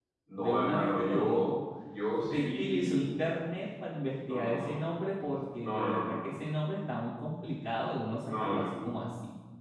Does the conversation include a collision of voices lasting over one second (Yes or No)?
Yes